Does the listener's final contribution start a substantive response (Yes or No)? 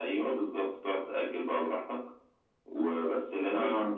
No